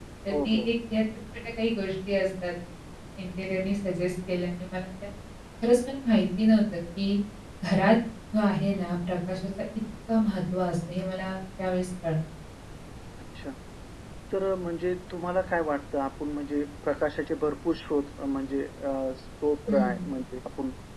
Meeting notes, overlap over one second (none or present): none